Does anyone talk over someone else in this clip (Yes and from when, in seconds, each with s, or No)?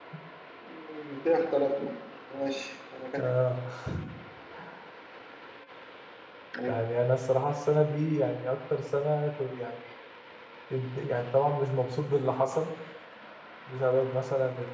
No